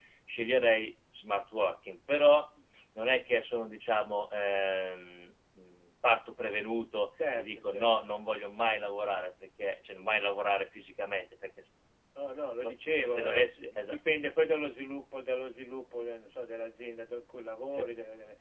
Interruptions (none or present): present